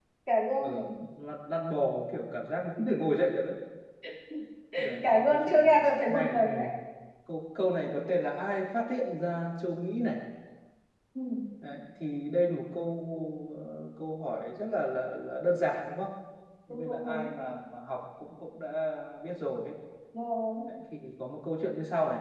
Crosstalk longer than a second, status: present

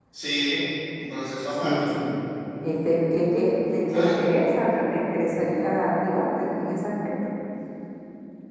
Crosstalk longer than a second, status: none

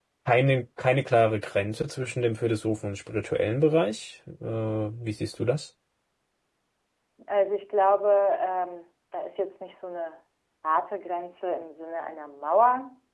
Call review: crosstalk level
none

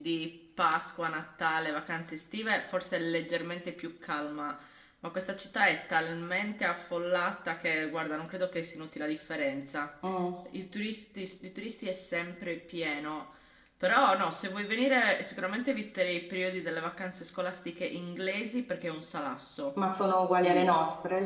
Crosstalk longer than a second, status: none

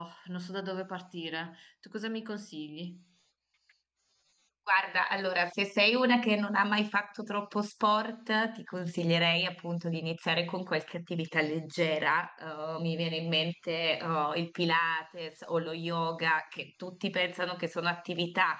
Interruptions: none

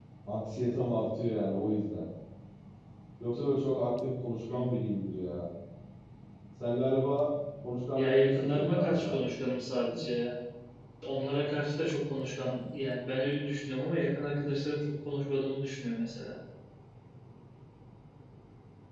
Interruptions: present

